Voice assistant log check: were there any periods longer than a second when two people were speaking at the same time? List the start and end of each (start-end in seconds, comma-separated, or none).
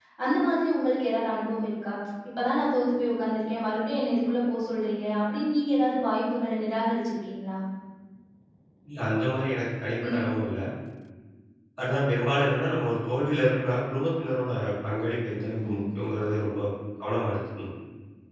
none